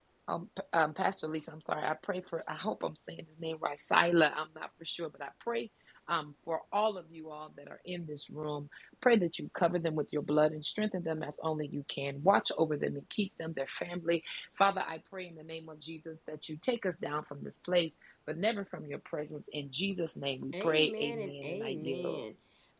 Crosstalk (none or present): present